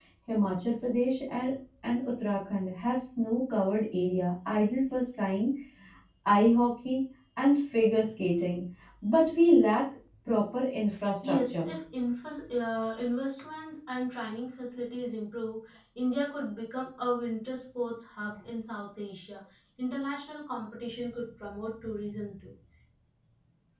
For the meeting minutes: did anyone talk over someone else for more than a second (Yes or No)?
No